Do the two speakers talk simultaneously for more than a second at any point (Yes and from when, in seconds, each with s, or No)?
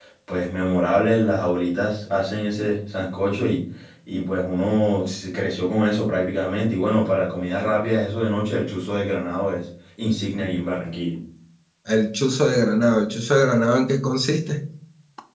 No